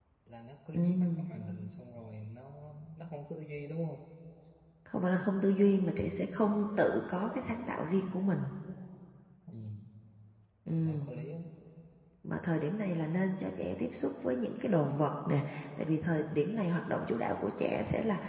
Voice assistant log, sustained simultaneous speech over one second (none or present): none